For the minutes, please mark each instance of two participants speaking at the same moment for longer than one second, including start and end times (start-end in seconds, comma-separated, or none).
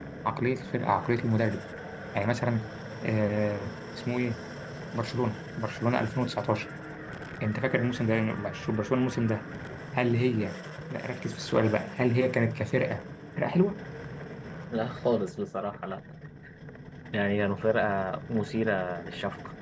none